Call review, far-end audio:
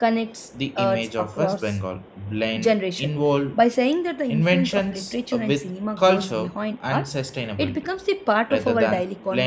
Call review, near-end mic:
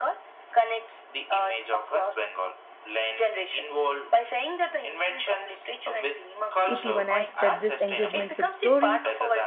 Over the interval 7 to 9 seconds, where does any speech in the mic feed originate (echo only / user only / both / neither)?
both